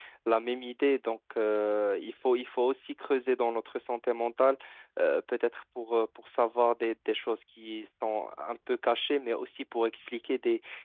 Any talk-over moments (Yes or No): No